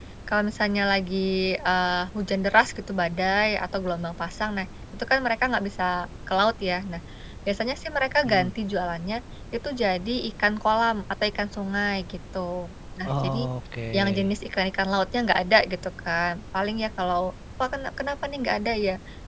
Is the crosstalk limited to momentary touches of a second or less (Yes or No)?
Yes